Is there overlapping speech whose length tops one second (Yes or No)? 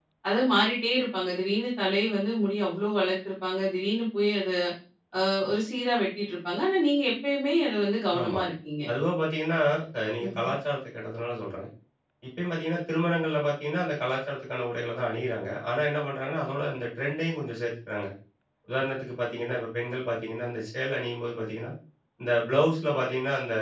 No